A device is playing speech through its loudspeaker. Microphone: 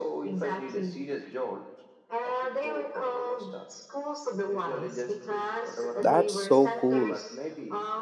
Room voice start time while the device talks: 6.0 s

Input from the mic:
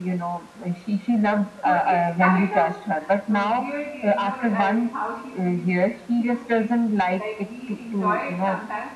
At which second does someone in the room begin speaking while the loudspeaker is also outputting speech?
1.6 s

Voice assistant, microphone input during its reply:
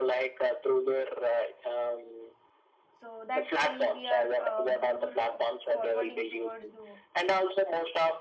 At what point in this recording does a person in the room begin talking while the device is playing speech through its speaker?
3.0 s

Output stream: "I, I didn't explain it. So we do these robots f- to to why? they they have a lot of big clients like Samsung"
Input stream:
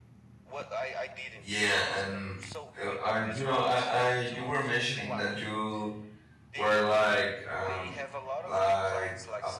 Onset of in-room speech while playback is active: 1.4 s

